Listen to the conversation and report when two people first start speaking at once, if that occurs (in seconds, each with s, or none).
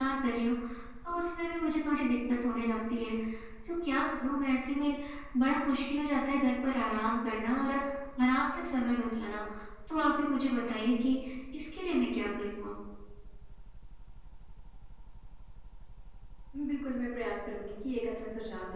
none